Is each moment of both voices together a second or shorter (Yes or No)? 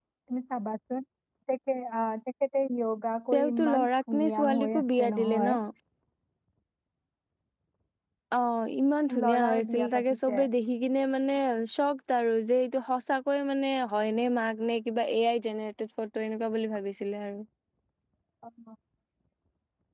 No